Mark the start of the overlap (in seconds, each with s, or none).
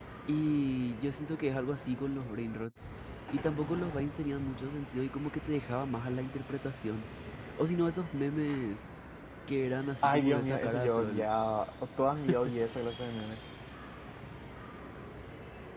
10.0 s